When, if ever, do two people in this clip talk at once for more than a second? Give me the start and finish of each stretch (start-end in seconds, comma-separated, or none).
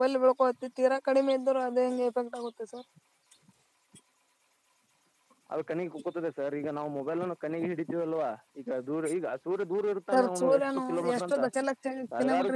10.1-11.3